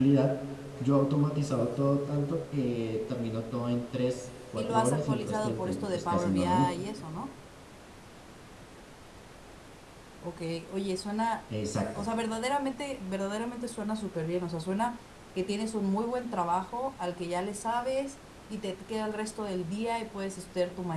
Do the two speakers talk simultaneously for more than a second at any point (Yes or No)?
Yes